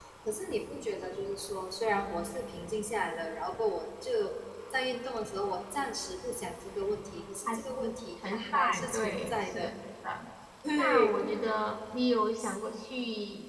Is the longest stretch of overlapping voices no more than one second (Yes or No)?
No